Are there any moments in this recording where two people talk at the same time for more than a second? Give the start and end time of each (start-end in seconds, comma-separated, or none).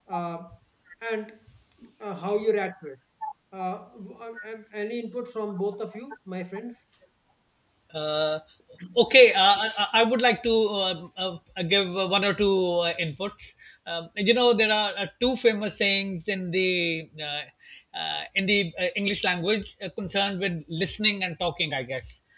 none